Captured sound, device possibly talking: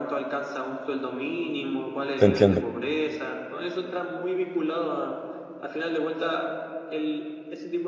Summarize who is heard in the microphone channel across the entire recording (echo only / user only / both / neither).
both